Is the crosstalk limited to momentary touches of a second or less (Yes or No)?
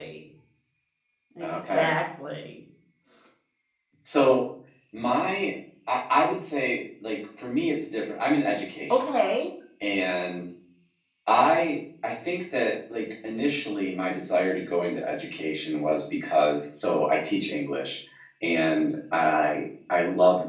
Yes